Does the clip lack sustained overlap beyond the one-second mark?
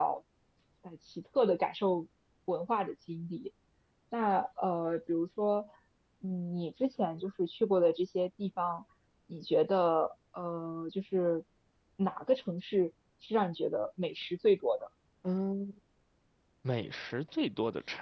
Yes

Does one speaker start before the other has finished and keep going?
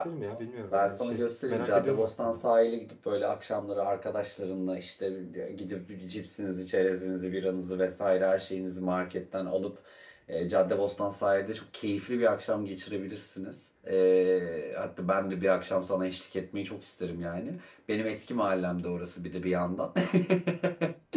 Yes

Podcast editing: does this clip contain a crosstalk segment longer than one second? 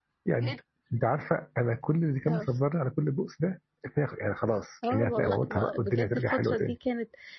Yes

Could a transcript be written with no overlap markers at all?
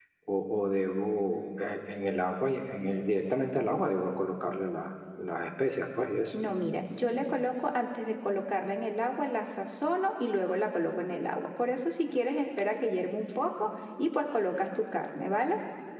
Yes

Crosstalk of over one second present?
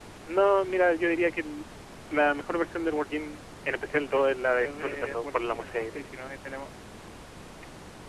Yes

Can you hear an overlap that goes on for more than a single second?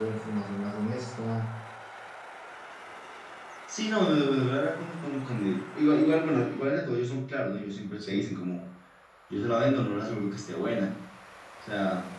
No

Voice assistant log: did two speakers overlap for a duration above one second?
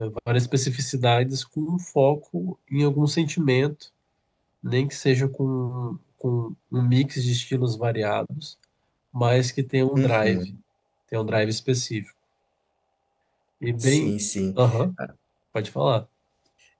No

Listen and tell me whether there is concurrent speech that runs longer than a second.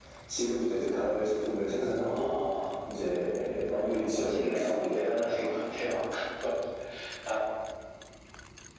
Yes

